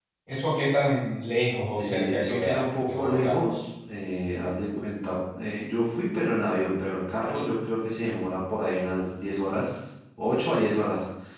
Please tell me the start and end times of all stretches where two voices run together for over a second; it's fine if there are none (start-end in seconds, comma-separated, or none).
1.8-3.4